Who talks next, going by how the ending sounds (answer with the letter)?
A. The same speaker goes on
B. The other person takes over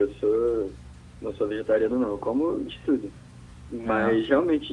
A